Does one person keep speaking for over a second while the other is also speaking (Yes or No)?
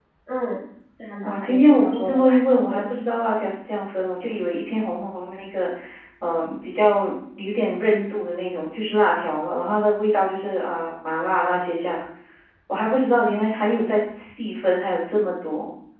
Yes